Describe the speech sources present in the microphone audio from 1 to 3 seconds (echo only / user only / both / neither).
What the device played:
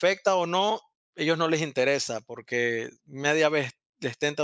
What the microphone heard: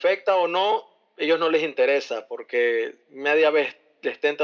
echo only